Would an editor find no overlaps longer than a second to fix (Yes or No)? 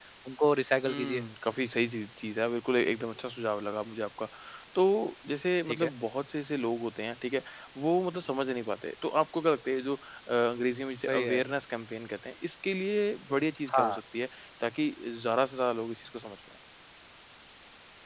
Yes